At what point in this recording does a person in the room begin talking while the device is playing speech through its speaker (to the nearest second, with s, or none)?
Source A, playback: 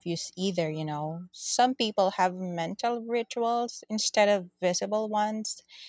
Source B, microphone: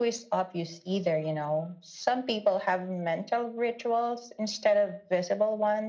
none